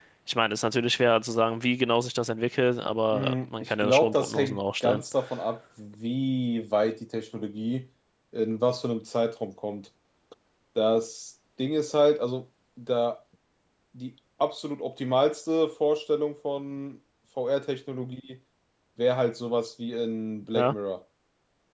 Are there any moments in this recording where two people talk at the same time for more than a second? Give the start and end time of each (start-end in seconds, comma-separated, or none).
3.1-5.0